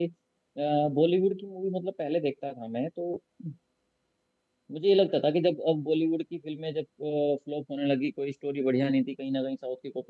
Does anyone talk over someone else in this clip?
No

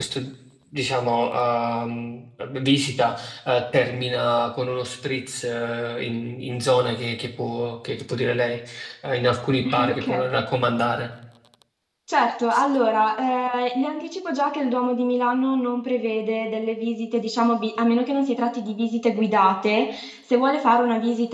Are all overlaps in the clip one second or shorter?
Yes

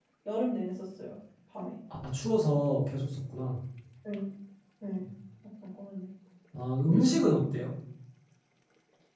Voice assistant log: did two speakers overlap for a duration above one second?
No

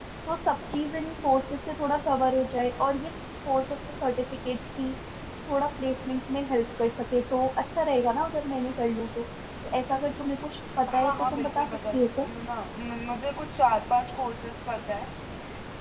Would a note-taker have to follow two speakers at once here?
Yes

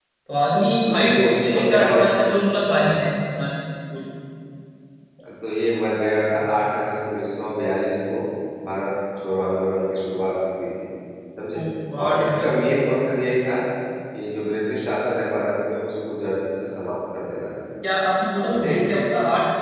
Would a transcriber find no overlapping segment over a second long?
No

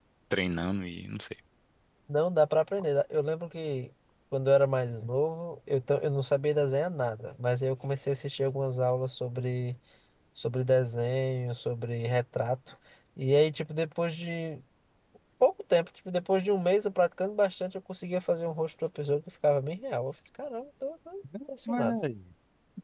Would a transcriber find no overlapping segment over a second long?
Yes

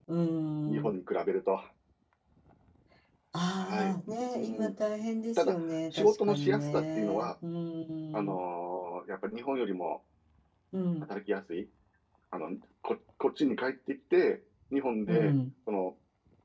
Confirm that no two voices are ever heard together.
No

